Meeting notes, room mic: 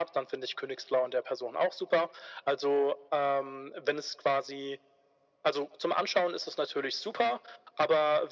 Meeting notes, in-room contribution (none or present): none